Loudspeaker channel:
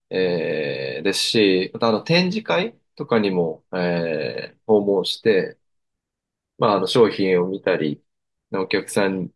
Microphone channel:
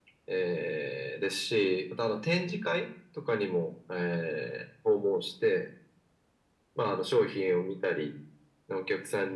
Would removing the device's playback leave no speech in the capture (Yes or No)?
Yes